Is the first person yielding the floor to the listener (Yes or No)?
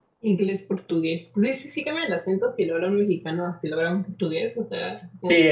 Yes